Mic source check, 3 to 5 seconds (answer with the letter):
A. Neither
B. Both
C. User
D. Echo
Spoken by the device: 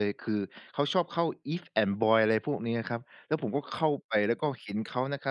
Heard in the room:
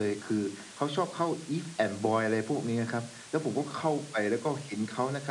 D